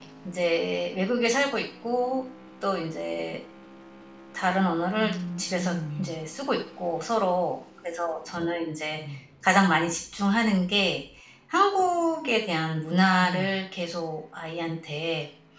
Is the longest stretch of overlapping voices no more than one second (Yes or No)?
No